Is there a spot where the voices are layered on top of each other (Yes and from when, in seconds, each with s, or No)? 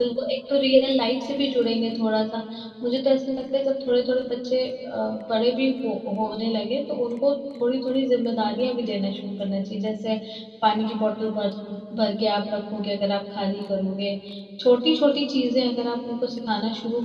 No